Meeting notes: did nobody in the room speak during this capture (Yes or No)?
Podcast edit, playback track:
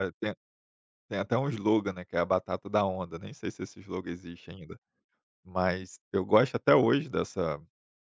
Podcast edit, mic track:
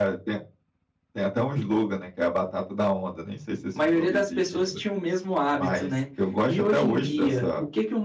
No